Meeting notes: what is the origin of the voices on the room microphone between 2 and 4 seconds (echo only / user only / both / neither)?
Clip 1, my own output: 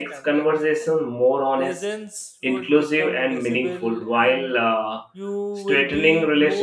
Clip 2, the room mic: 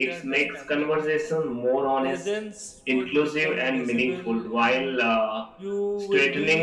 echo only